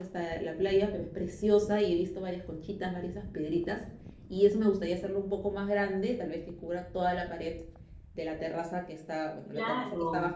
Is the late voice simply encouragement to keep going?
Yes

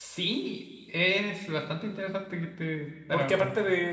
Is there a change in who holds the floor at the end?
Yes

